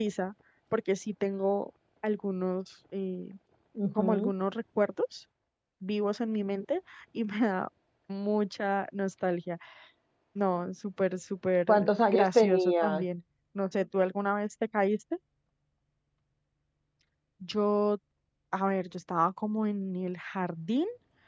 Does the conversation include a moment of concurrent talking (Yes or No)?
Yes